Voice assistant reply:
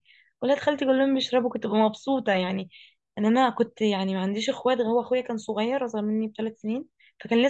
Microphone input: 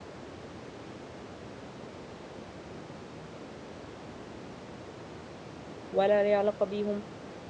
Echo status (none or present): none